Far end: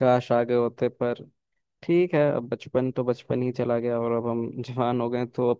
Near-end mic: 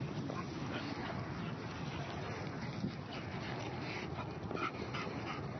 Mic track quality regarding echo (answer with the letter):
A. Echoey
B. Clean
B